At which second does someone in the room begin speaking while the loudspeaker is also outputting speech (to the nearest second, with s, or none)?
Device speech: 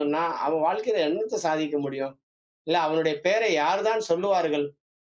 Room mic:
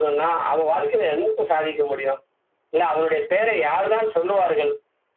none